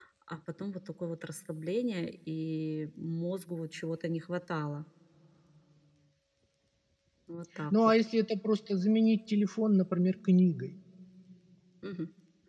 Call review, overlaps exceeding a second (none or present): none